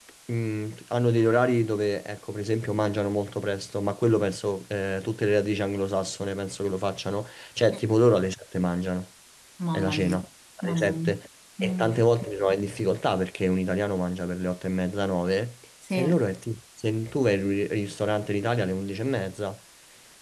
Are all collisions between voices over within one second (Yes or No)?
Yes